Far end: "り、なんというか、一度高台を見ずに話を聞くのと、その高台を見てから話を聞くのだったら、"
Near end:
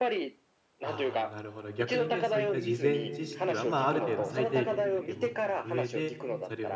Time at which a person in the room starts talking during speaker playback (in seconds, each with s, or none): 0.8 s